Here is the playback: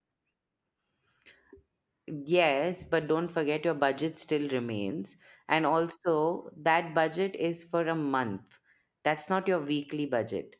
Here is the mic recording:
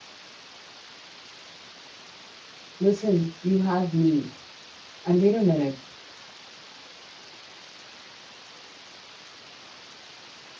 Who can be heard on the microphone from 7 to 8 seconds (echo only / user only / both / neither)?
neither